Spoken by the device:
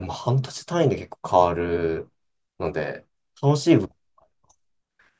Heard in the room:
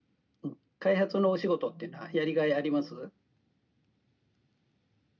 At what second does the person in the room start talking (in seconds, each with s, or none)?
0.4 s